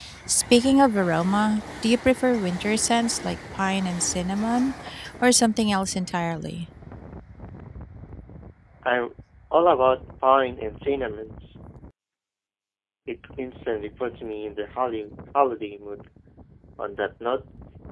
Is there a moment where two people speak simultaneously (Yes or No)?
No